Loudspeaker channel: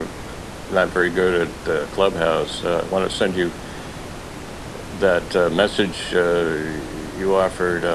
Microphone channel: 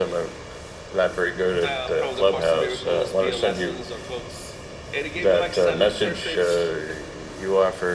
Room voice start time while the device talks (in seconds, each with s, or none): 1.5 s